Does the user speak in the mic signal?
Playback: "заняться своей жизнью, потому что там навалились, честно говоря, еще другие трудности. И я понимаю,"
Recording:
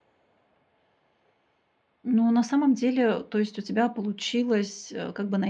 Yes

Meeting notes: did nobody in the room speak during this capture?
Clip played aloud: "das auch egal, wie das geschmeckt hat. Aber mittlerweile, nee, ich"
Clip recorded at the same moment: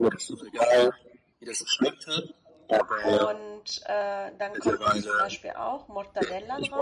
No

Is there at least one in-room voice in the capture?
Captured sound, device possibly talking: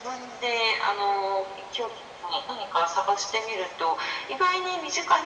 No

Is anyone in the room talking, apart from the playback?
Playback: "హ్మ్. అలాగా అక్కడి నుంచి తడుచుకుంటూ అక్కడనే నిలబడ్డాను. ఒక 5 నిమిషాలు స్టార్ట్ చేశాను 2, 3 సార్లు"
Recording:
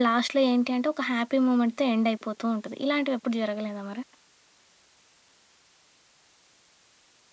Yes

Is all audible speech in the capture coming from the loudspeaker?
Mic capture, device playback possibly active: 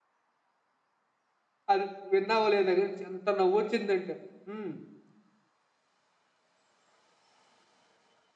No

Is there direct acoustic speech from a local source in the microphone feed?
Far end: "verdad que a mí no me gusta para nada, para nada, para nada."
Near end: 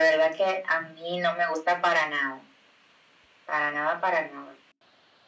No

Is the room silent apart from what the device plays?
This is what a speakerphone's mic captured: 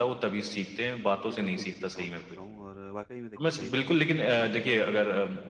No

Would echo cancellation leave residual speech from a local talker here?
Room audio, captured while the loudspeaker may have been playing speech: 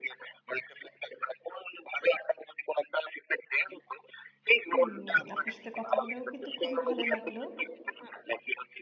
Yes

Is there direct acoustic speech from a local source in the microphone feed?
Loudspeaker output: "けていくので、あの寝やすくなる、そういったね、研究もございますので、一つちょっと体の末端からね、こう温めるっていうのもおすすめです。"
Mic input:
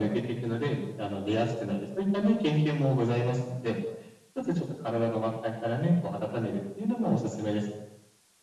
No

